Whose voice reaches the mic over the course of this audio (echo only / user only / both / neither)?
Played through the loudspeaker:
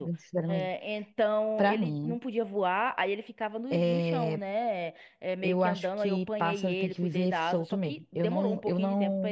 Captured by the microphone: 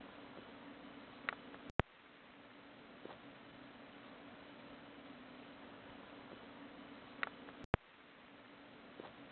neither